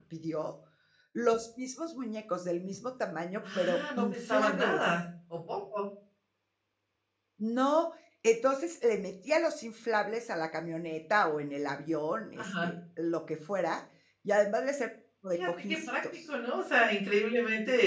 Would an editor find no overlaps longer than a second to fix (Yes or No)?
No